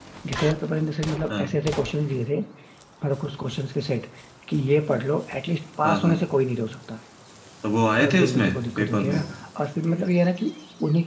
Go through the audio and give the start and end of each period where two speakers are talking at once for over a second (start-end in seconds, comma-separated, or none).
8.0-9.2